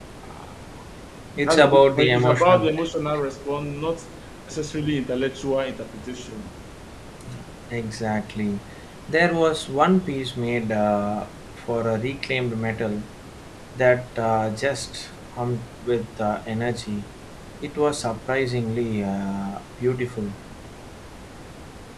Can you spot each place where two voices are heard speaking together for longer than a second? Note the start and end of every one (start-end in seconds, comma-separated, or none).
1.4-2.7